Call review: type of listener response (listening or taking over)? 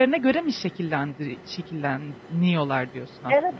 taking over